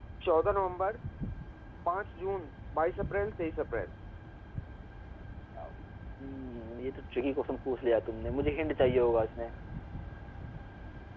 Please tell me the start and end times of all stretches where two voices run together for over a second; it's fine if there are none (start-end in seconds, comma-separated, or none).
none